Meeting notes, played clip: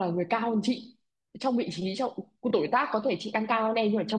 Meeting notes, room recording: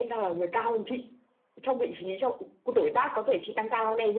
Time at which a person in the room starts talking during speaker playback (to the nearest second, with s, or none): none